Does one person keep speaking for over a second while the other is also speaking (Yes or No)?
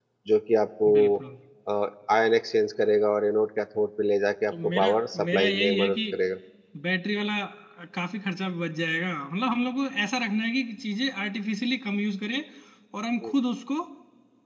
Yes